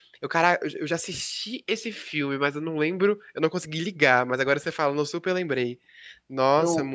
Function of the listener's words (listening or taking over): taking over